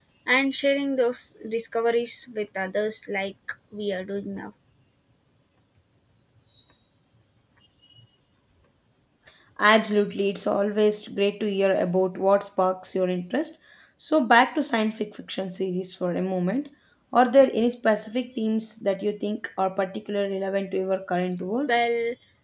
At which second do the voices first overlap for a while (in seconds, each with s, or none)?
none